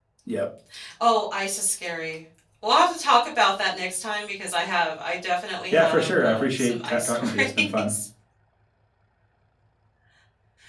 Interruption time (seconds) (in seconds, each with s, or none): 5.7 s